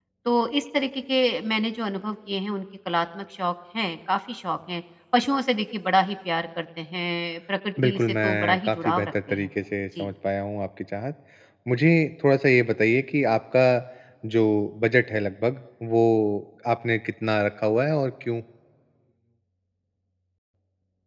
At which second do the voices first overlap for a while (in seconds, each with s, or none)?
7.8 s